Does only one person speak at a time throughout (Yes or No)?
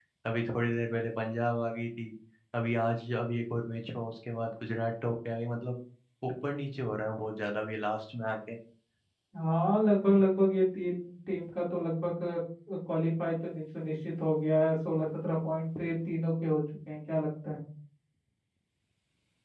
Yes